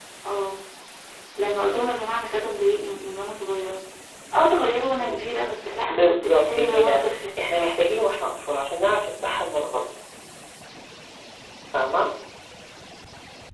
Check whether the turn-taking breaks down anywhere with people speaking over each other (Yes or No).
Yes